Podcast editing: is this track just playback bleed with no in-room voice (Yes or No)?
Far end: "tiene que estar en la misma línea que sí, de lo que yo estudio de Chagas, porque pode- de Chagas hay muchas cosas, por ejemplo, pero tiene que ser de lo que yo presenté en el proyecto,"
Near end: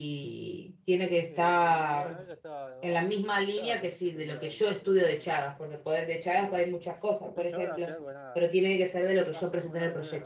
No